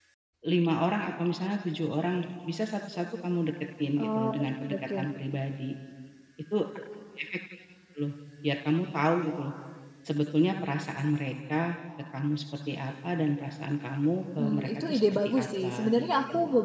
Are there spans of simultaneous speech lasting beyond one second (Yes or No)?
Yes